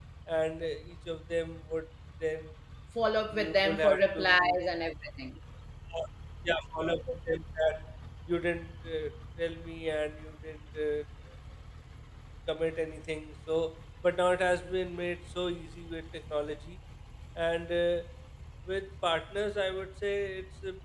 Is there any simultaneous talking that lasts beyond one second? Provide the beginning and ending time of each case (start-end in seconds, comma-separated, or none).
3.3-4.6